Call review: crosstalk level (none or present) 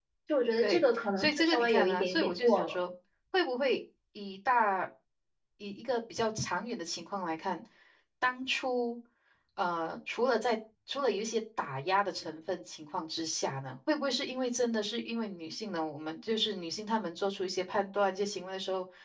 present